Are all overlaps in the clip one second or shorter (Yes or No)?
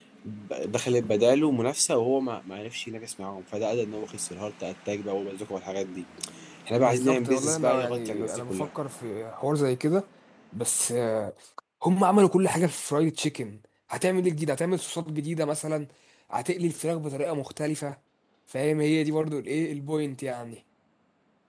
No